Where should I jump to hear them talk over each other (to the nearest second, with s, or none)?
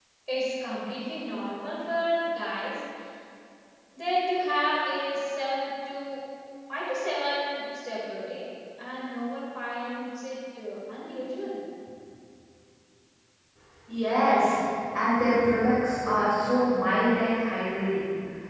none